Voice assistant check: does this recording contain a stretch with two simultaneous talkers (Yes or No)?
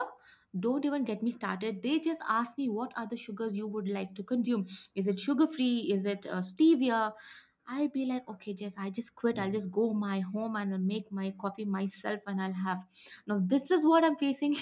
No